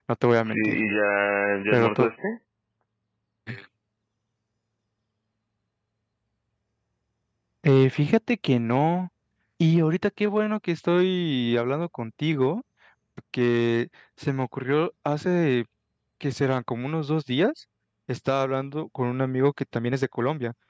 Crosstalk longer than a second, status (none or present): none